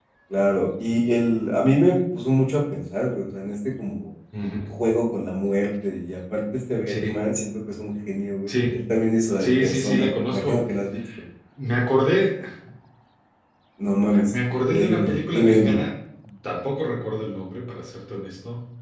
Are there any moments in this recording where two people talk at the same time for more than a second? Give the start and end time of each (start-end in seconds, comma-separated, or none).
9.4-10.6, 14.3-15.8